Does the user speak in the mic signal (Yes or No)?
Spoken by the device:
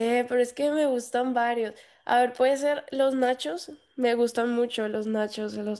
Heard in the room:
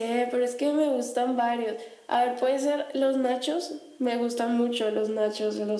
No